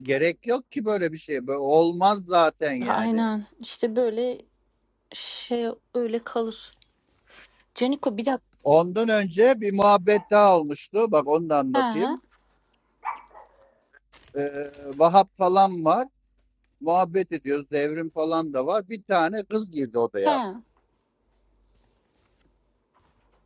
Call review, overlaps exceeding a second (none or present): none